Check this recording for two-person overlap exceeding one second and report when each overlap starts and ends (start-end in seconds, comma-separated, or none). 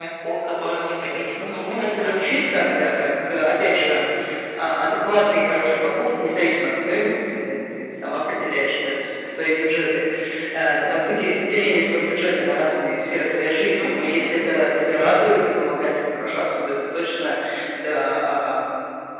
1.0-2.6